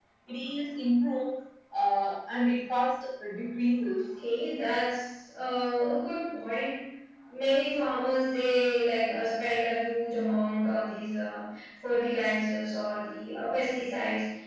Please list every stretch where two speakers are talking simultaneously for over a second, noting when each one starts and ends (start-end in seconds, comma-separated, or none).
none